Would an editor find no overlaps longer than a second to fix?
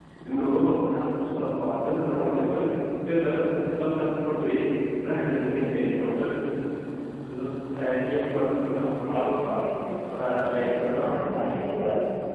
Yes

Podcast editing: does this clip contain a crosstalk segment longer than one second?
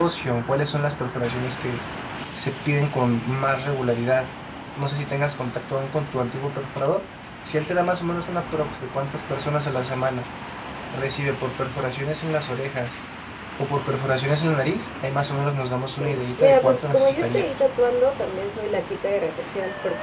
Yes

